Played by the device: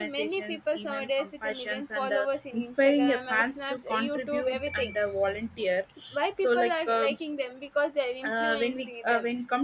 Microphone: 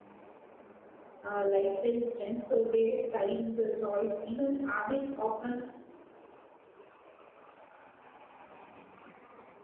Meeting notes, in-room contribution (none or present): present